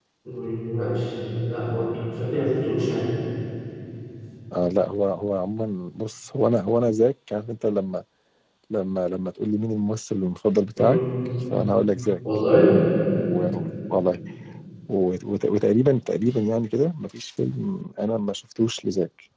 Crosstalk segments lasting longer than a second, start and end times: none

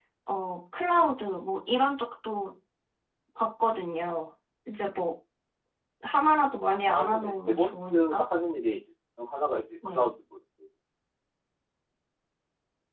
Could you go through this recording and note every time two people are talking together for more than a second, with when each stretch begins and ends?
6.9-8.3

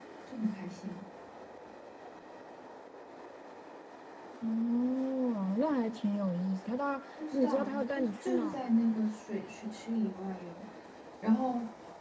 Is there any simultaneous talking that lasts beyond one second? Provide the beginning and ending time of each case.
7.3-9.0

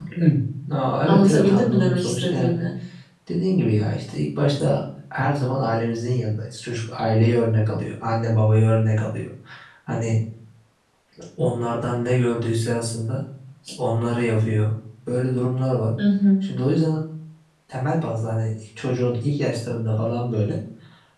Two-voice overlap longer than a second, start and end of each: 1.1-2.6

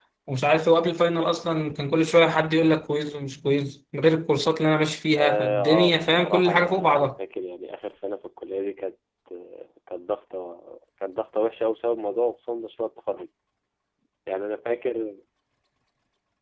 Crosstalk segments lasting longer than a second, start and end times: 5.2-7.2

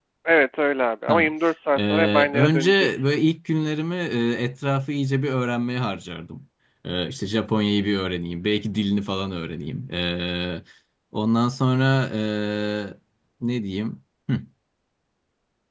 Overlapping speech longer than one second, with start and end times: 1.8-3.1

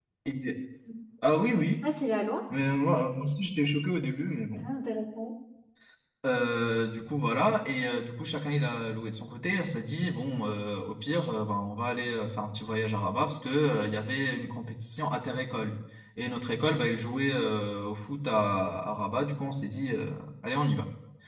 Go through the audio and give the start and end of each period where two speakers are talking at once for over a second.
none

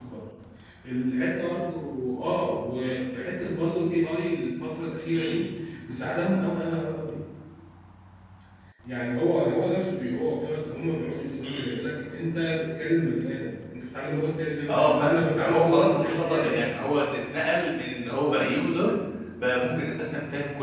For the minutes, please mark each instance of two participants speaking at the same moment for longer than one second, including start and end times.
14.7-16.7

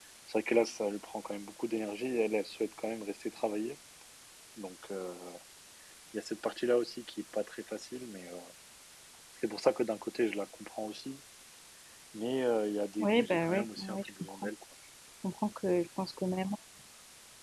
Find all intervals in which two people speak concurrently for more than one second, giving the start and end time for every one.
13.0-14.4

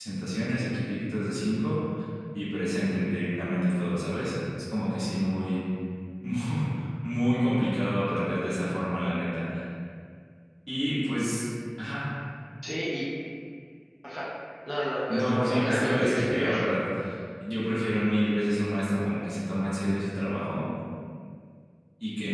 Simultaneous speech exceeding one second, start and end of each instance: 15.1-16.5

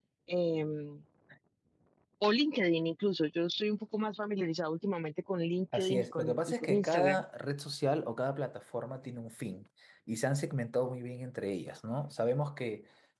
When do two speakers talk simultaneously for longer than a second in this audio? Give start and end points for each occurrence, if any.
5.7-7.2

